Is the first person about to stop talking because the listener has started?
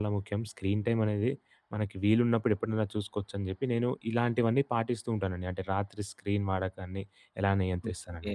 Yes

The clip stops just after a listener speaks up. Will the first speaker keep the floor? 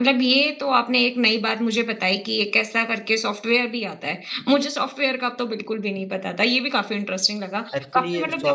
No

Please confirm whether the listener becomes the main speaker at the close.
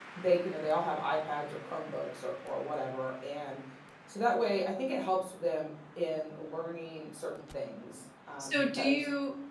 Yes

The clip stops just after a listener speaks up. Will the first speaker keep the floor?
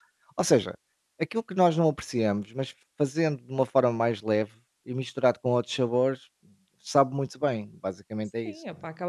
No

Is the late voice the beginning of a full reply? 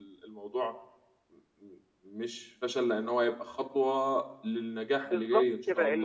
Yes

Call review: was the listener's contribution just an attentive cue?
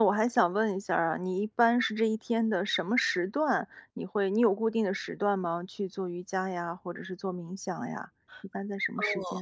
No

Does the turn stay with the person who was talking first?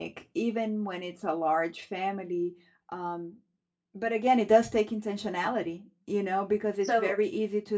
Yes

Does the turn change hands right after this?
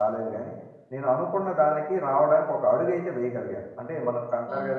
No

